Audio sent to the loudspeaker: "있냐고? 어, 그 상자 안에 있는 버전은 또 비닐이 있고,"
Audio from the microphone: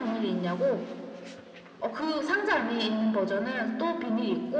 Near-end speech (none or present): none